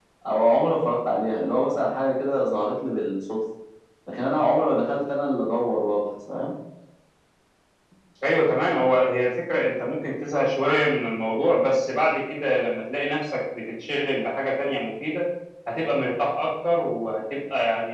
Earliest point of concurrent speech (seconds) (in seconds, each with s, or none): none